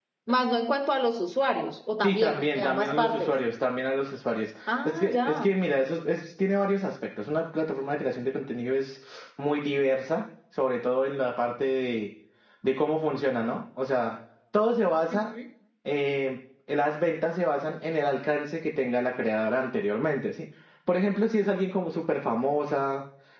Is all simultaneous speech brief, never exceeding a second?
No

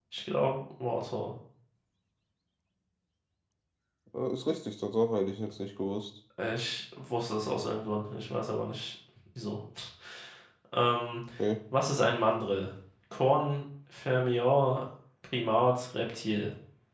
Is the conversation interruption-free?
Yes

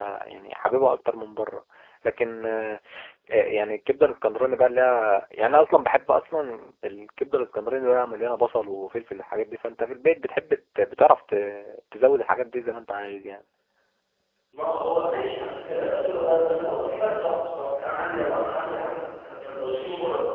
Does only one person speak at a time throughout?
Yes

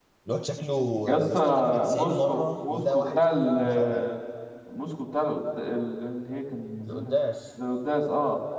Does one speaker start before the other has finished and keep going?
Yes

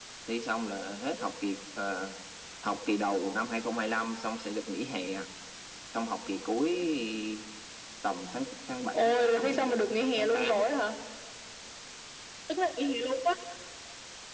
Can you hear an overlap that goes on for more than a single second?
Yes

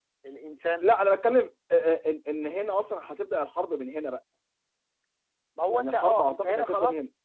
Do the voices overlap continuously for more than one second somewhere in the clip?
Yes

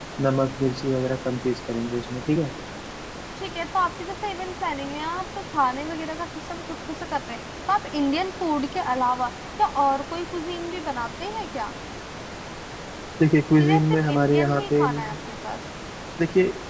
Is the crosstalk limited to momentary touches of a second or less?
No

